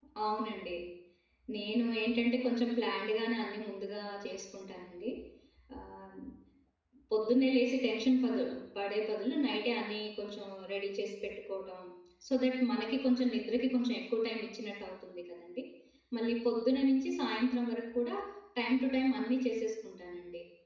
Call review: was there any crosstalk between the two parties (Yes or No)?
No